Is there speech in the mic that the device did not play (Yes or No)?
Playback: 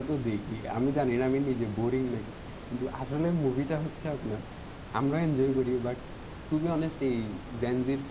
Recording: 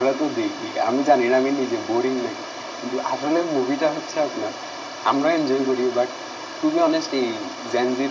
No